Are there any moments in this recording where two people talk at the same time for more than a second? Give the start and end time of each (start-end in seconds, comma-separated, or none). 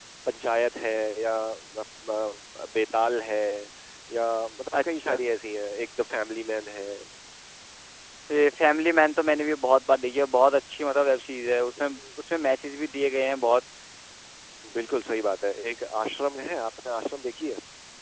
none